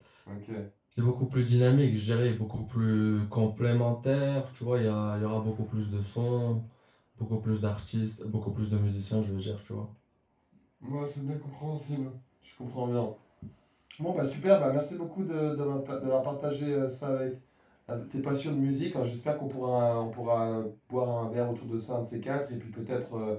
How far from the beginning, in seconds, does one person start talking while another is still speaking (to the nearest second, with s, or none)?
none